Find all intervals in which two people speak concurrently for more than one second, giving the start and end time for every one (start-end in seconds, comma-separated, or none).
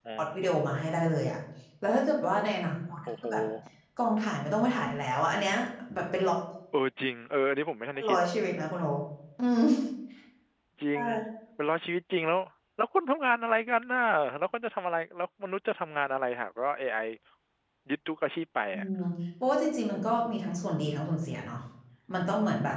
none